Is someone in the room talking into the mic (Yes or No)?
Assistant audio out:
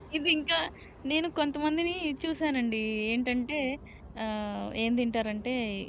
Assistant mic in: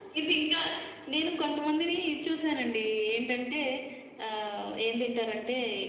No